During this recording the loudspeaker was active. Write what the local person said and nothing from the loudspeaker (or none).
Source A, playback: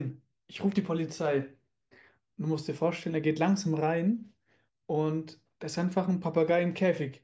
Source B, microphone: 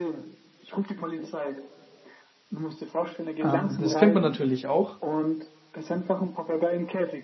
Ähm, das kennt man natürlich auch.